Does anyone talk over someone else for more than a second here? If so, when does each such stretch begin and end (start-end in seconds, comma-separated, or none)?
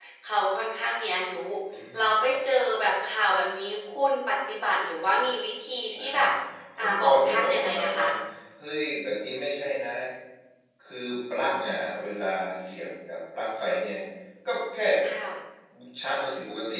6.8-8.1